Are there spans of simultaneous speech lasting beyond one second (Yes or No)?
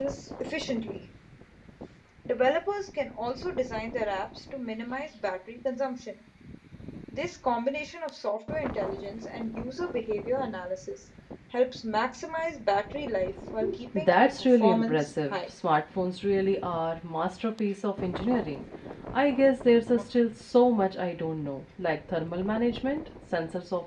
Yes